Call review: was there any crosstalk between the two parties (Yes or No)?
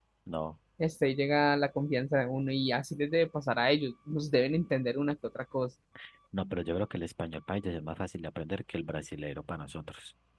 No